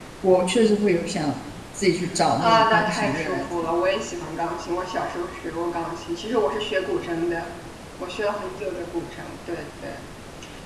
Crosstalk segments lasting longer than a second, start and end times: 2.4-3.7

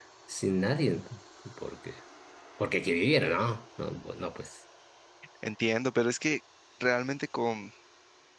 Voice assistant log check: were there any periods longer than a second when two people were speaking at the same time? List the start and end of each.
none

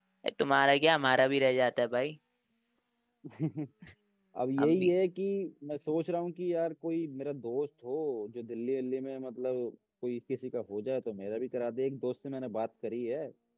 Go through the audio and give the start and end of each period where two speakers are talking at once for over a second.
none

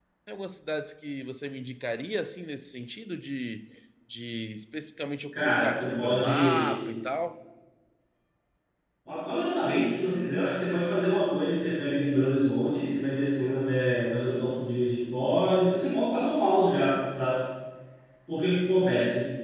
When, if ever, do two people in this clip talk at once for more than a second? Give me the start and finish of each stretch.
5.3-6.8

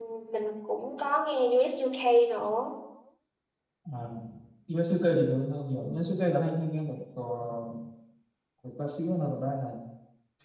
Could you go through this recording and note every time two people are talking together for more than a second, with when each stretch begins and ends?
none

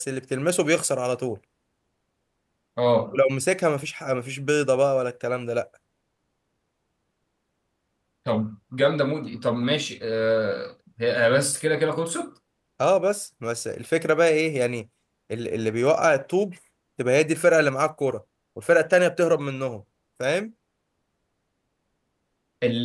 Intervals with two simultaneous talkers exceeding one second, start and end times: none

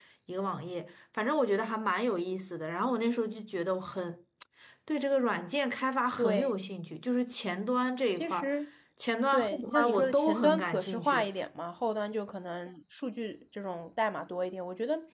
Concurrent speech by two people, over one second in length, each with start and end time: 9.3-11.2

